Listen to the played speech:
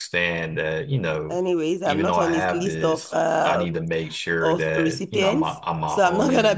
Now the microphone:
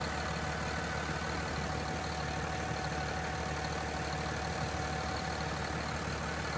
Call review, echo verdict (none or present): none